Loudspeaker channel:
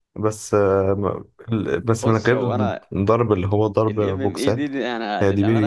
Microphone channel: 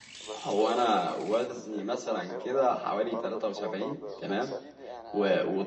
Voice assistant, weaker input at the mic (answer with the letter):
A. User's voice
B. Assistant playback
B